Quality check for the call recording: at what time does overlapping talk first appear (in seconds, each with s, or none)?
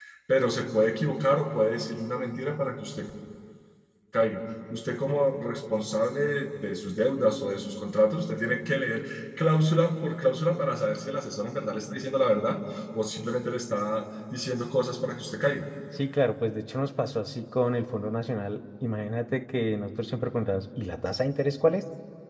none